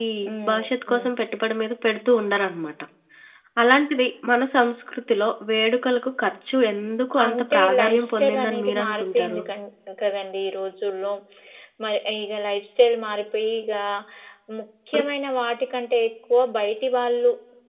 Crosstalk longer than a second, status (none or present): present